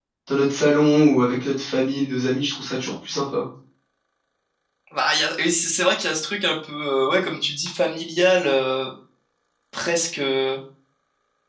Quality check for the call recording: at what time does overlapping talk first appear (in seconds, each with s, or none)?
none